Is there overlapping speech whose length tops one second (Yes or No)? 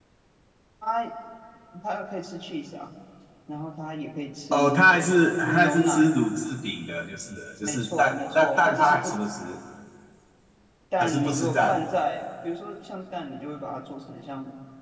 Yes